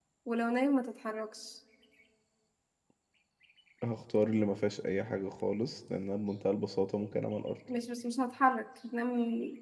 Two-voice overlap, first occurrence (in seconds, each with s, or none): none